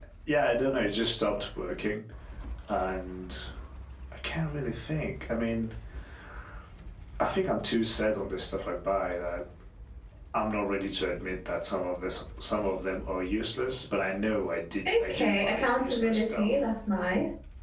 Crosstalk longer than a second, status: present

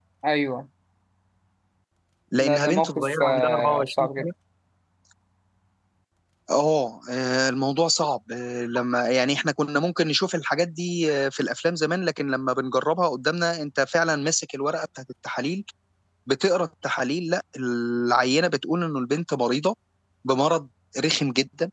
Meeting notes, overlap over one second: present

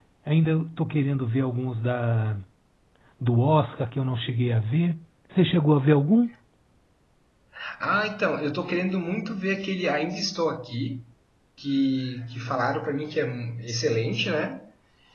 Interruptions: none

